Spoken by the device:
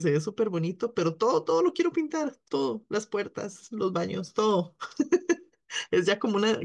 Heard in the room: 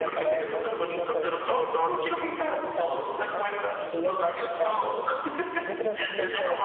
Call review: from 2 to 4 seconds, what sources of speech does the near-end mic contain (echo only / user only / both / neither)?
both